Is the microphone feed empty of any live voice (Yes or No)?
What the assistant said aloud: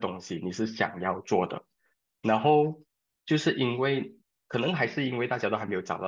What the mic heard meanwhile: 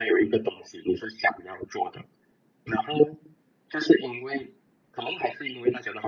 Yes